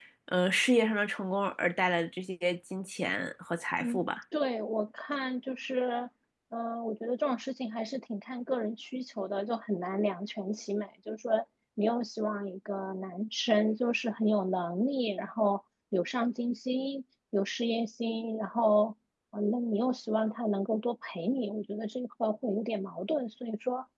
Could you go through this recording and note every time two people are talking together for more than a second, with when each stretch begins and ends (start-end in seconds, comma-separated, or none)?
none